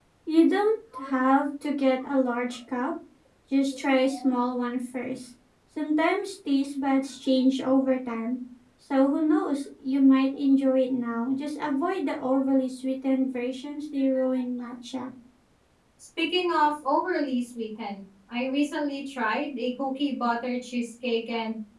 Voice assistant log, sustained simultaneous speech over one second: none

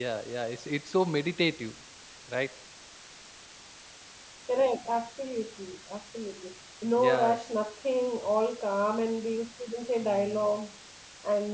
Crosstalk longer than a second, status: none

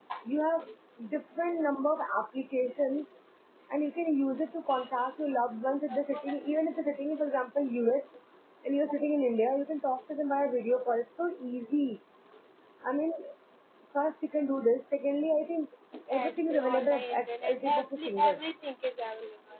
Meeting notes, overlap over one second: present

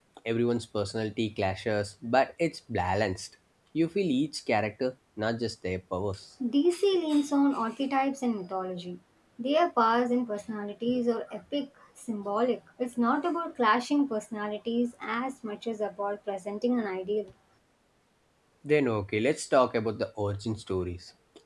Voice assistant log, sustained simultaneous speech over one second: none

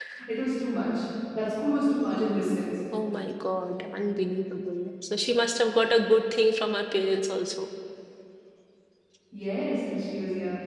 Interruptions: none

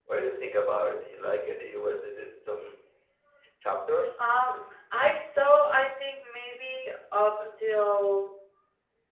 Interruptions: none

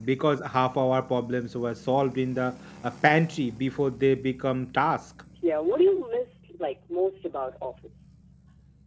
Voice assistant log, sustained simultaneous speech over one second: none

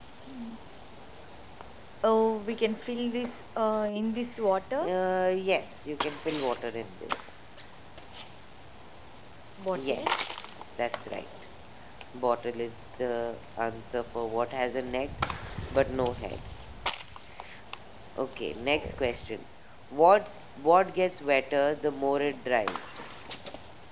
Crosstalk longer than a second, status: none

